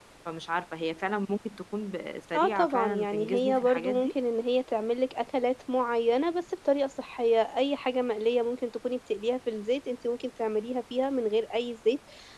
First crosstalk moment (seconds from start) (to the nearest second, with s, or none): 2 s